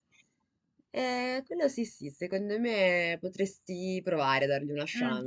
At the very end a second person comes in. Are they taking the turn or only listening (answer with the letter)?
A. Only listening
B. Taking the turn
B